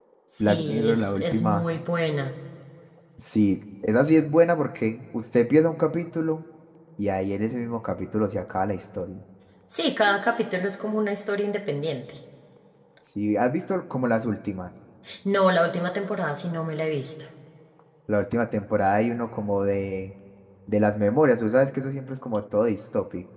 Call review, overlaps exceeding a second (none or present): present